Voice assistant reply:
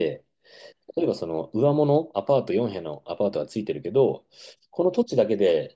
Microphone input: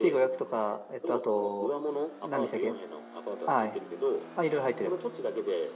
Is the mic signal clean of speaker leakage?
No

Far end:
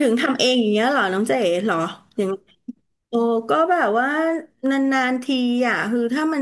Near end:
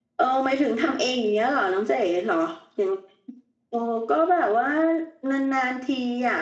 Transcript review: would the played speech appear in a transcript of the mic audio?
Yes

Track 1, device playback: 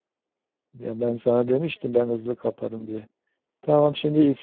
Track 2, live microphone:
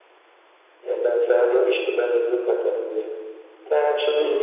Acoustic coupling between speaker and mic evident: Yes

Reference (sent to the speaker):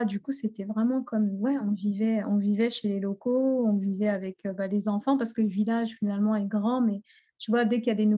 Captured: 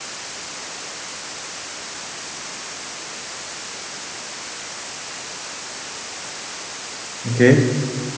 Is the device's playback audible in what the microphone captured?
No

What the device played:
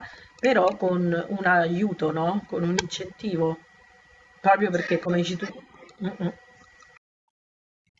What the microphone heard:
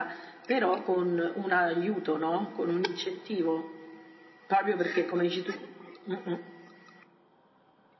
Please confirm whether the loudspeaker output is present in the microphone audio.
Yes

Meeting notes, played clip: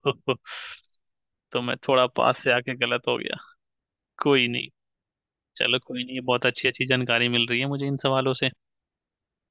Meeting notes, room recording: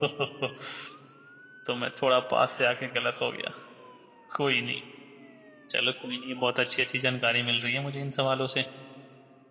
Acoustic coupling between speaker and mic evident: Yes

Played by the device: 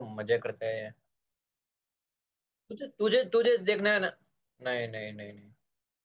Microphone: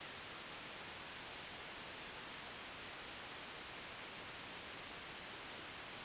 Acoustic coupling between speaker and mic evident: No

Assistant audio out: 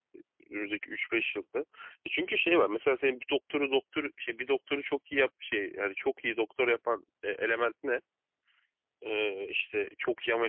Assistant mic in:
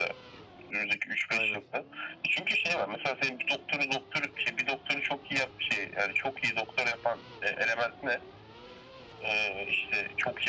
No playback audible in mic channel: No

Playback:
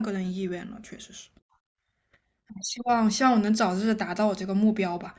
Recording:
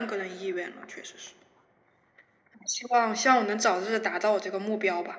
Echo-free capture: No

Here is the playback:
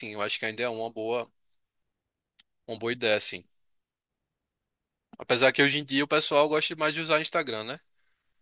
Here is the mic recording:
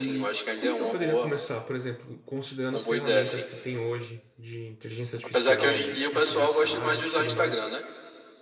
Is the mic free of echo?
No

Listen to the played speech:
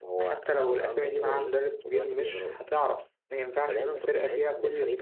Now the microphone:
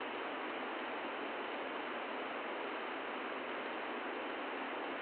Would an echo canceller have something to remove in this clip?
No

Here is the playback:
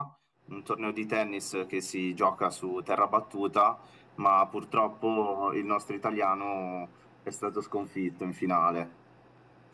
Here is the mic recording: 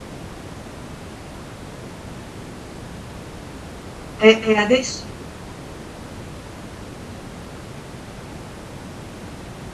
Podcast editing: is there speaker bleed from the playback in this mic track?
No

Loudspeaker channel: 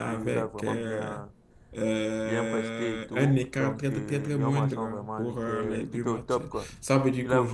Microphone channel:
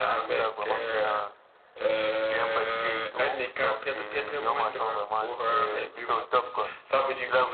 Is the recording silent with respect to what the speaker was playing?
No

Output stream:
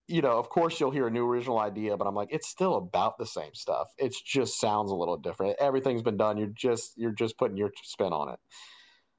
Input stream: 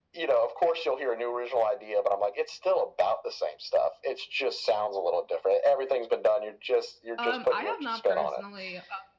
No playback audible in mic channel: No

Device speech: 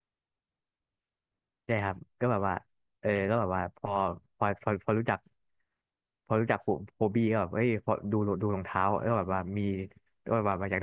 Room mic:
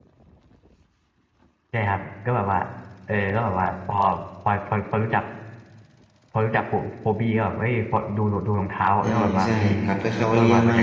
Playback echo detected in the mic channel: Yes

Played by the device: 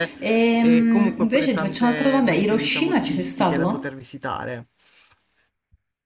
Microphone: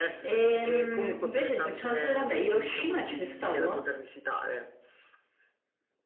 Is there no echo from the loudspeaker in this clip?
No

